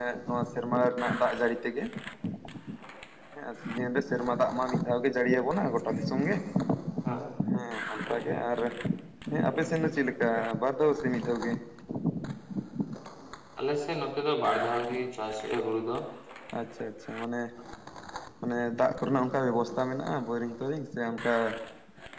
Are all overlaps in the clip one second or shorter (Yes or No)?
Yes